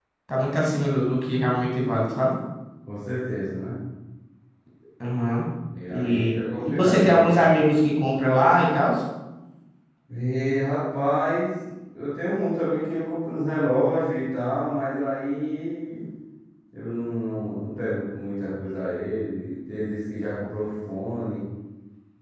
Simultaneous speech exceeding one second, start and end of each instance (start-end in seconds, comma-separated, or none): 5.9-7.3